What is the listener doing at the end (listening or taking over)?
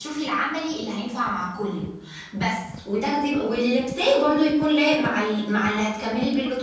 taking over